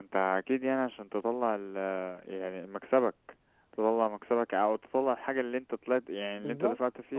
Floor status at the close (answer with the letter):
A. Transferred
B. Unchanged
A